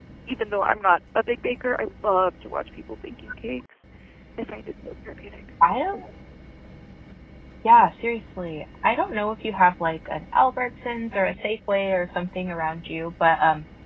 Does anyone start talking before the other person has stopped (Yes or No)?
No